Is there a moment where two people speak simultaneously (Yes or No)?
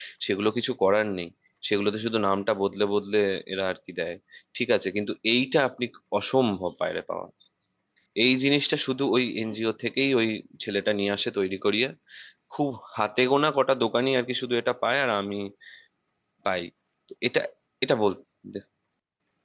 No